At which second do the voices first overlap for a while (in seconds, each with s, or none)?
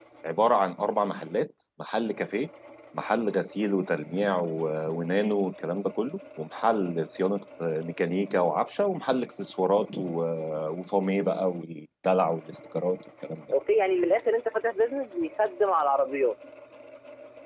none